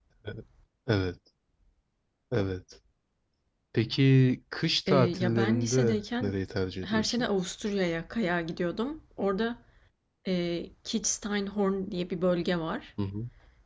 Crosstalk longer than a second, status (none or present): present